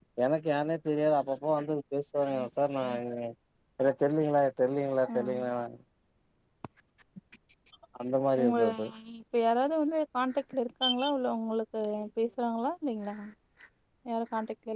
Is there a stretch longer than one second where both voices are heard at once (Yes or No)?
No